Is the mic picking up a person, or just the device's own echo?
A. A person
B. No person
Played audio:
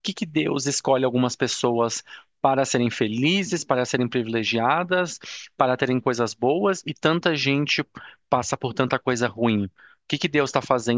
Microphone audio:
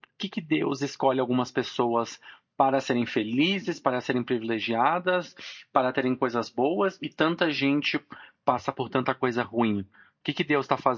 B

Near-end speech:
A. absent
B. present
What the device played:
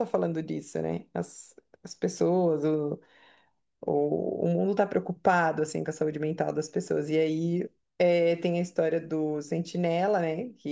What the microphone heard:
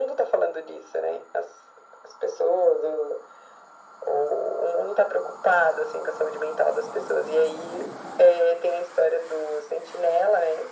A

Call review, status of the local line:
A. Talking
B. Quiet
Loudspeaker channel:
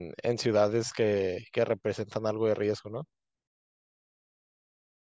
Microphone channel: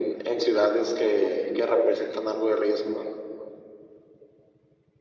B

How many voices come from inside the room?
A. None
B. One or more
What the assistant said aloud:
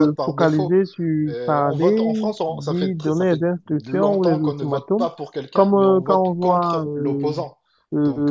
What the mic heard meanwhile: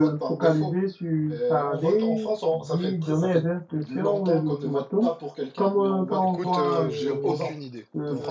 B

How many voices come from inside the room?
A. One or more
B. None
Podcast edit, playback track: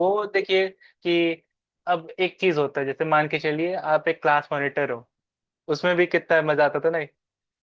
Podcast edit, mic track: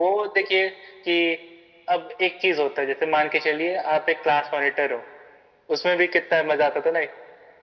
B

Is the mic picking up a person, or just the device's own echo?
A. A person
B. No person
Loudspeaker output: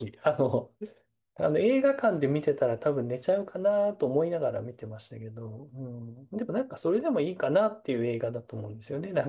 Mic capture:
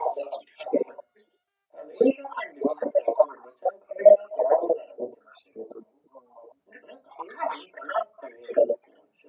B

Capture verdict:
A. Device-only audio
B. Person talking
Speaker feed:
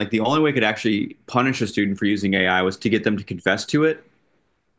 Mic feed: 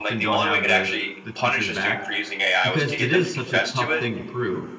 B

